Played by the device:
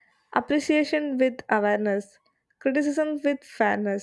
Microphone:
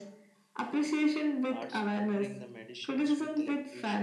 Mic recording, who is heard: both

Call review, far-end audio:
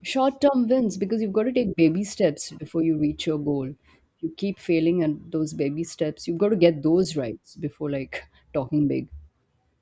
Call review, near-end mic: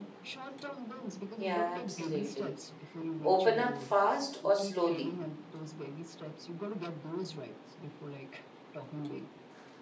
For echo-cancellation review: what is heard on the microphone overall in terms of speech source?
both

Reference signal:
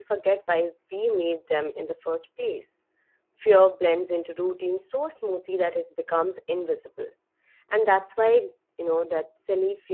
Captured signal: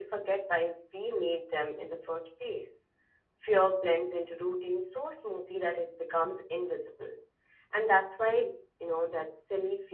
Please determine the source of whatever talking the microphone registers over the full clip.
echo only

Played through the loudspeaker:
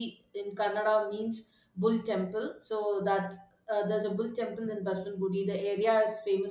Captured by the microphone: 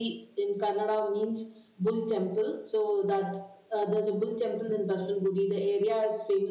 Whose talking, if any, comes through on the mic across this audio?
echo only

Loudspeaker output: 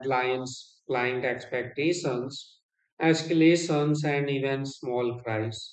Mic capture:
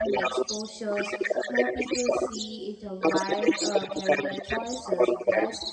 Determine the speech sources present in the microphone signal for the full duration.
both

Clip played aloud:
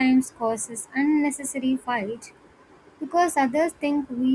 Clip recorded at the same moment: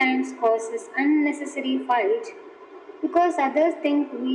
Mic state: echo only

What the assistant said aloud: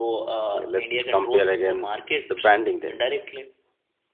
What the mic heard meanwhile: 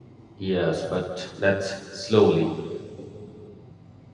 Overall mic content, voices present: user only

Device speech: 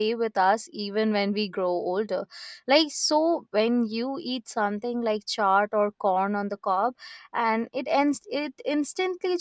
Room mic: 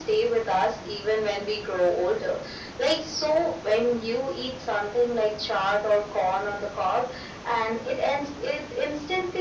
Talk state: echo only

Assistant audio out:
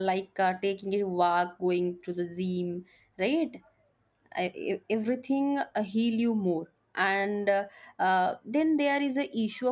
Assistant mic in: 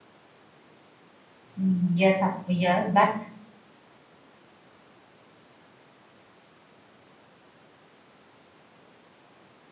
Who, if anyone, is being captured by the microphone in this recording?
user only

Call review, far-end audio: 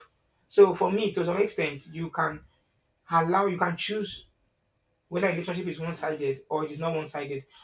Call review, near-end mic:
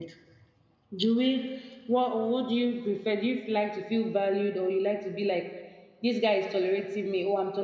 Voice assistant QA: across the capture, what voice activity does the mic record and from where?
user only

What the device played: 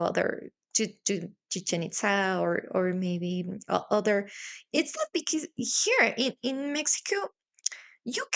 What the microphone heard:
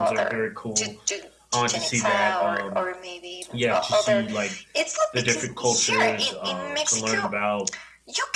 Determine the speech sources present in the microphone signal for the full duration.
both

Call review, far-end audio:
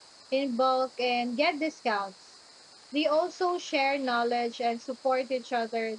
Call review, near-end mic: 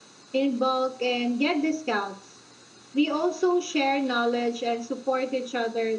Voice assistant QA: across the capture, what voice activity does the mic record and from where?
echo only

